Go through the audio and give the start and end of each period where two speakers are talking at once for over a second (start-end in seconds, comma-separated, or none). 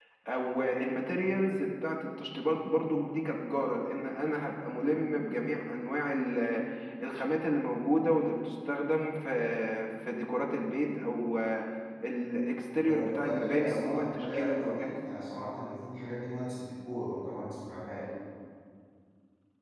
12.8-14.9